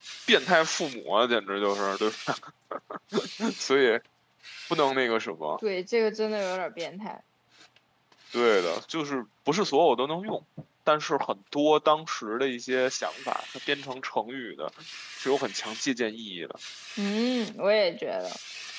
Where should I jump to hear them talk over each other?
none

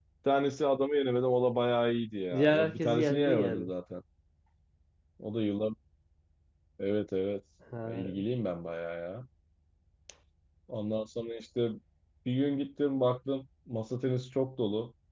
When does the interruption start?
2 s

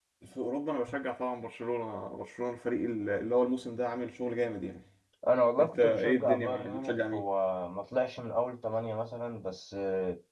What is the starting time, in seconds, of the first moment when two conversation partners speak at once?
6 s

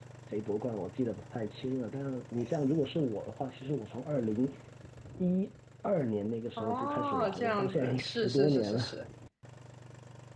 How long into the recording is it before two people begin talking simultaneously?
7 s

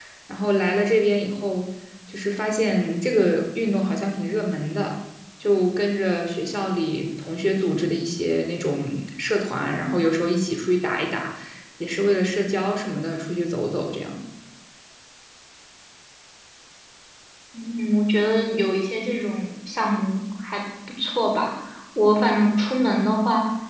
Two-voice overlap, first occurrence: none

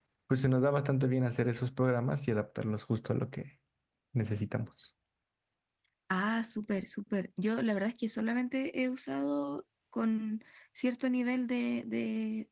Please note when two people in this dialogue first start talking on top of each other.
none

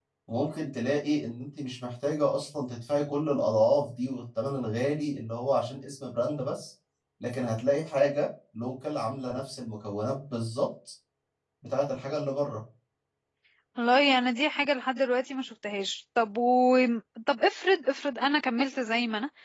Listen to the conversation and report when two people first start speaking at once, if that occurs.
none

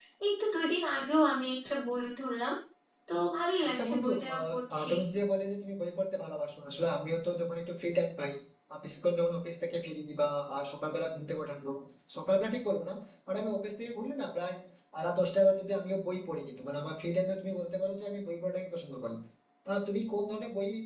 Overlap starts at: 4 s

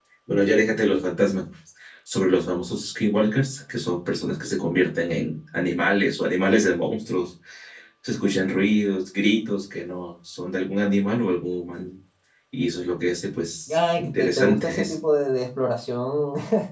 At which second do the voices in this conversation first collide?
14 s

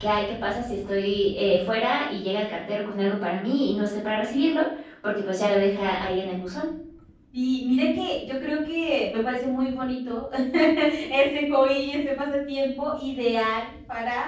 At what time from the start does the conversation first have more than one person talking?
none

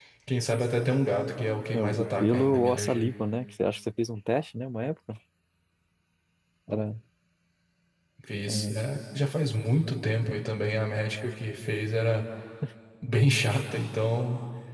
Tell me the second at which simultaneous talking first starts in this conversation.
2 s

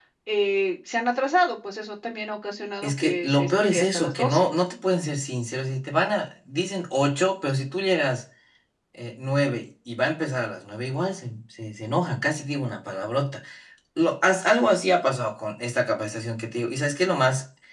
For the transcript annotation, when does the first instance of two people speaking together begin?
3 s

